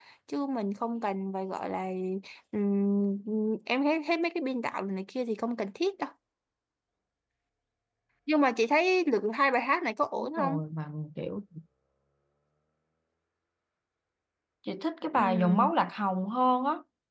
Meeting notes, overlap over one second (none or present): none